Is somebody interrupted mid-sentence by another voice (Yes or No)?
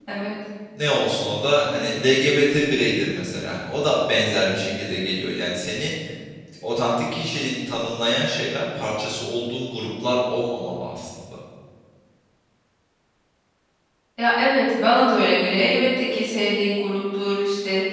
No